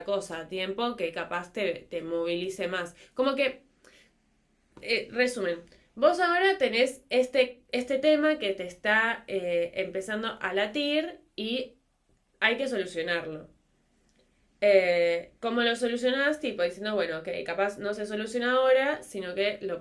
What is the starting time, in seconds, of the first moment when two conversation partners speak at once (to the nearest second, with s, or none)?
none